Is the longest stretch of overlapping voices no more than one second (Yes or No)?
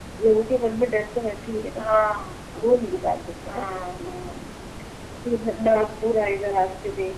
Yes